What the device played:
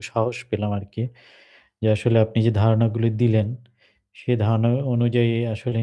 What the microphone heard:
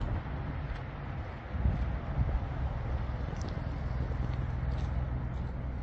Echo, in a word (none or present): none